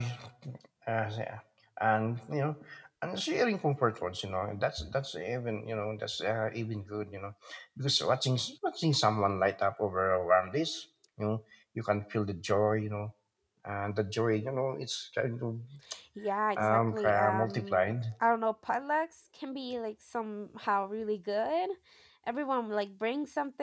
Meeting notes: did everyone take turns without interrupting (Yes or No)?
No